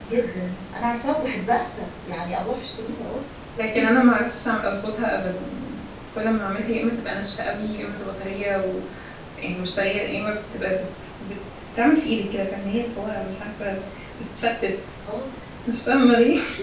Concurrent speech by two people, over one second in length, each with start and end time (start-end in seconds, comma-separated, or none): none